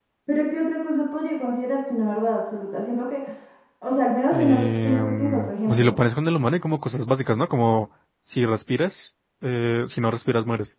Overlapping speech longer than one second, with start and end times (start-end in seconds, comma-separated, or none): 4.3-5.9